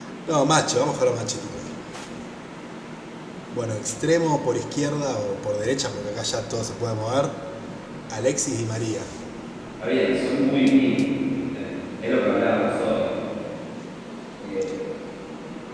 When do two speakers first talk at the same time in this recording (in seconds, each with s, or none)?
none